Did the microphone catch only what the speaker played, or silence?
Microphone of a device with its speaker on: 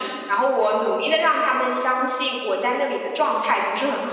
Yes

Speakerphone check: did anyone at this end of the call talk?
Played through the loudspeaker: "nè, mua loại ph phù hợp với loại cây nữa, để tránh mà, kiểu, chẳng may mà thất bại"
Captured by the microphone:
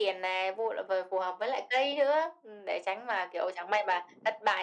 No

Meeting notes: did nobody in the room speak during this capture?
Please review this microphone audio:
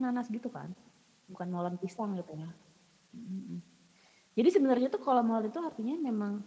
No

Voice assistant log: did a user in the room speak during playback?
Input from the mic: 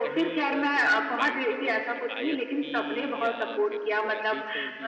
Yes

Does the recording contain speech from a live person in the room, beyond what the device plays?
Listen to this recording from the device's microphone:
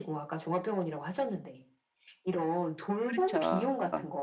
Yes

